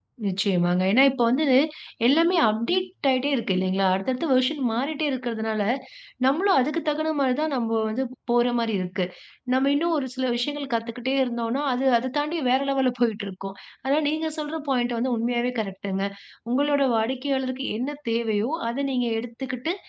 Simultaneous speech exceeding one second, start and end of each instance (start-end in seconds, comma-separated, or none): none